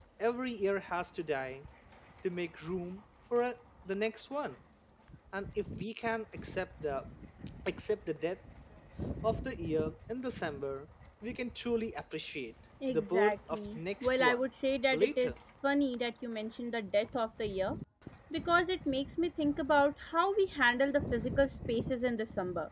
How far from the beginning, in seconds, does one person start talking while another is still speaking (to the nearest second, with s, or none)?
13 s